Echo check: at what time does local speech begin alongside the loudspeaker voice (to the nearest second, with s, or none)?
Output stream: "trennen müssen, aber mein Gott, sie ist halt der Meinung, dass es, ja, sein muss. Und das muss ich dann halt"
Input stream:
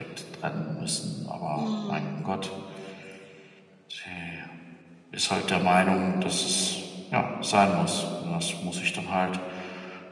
2 s